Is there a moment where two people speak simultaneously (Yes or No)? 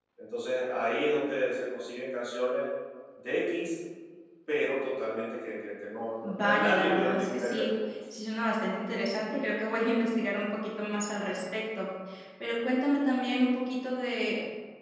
Yes